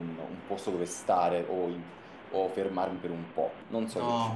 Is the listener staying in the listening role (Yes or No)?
No